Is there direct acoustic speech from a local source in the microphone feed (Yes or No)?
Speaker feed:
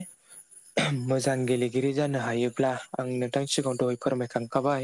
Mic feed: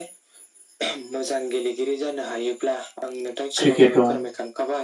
Yes